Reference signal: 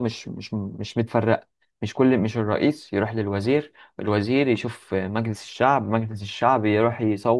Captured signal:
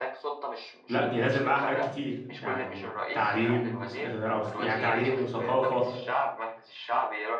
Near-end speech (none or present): present